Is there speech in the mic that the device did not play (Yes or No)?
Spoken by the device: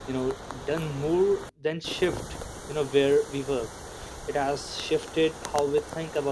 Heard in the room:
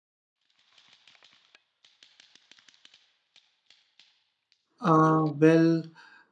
Yes